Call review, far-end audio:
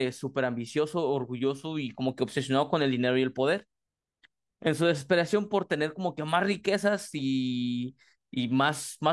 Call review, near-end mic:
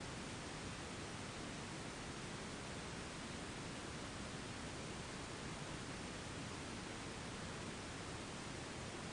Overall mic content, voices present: neither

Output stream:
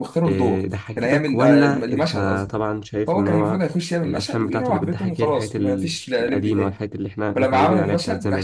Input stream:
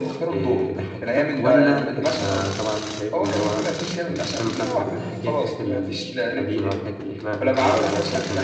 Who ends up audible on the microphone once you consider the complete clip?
echo only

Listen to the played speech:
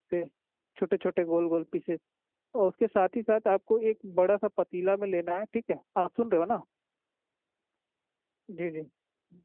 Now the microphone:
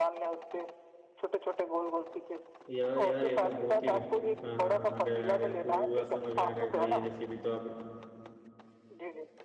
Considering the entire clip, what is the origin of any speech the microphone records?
both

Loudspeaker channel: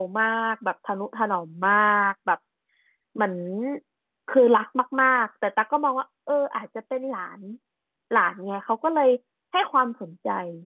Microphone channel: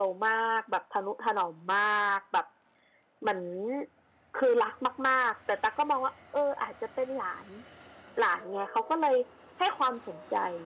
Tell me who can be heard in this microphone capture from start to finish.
echo only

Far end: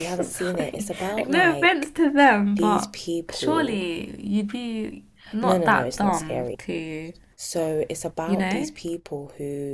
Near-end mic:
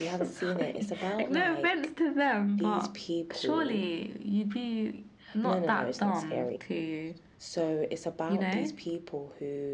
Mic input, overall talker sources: echo only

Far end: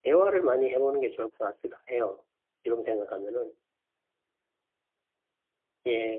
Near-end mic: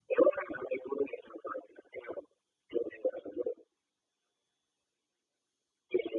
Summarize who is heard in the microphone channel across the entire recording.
echo only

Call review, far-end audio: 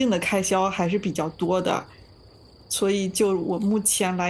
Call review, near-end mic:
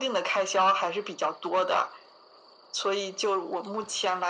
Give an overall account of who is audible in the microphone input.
echo only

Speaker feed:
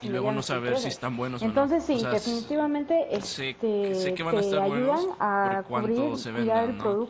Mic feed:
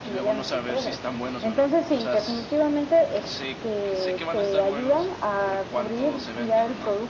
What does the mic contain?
echo only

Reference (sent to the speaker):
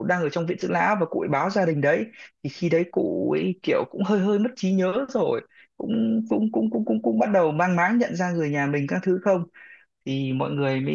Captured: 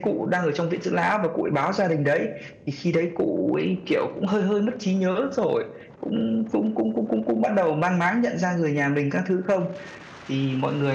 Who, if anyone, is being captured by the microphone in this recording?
echo only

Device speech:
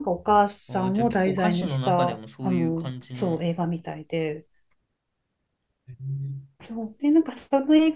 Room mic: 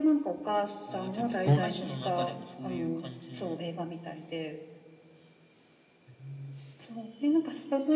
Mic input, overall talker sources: both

